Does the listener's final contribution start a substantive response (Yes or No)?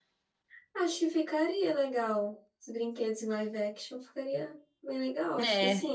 Yes